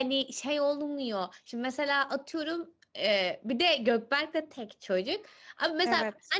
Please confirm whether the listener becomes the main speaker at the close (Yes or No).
No